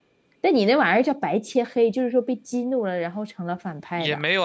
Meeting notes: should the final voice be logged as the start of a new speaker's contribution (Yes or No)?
Yes